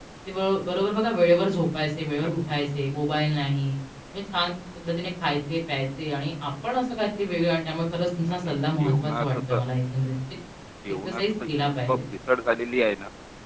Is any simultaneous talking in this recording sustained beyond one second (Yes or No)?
Yes